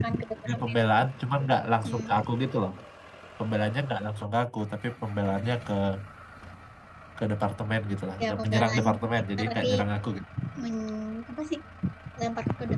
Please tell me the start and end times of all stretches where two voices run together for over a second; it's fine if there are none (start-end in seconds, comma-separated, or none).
8.2-9.7